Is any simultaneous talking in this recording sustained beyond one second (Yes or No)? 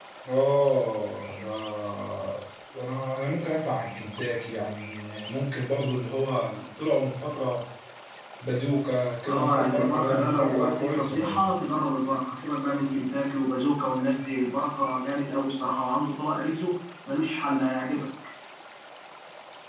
Yes